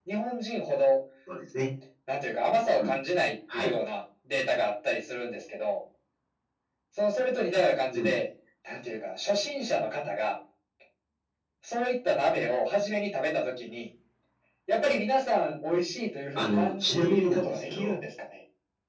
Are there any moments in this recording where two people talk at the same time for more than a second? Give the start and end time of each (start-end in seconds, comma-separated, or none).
16.4-17.9